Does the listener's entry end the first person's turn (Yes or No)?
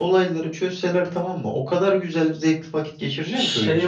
Yes